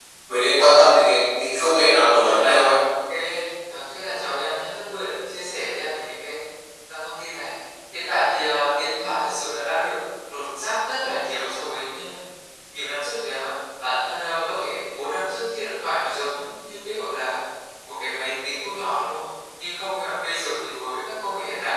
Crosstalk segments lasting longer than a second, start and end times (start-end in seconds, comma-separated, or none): none